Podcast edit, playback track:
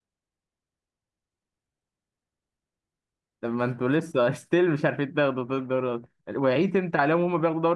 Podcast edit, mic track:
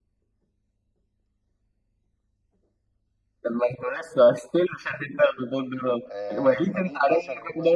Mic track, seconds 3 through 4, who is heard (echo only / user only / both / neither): echo only